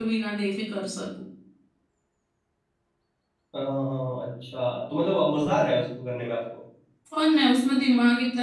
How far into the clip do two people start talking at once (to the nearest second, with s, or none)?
none